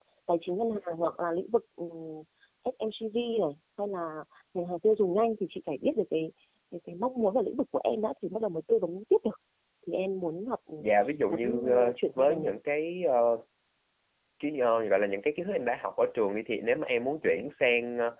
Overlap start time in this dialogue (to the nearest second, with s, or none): 11 s